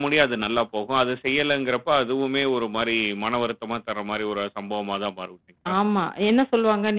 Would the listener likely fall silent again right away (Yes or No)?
No